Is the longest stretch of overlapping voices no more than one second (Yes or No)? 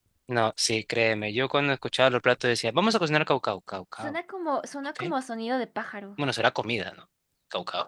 Yes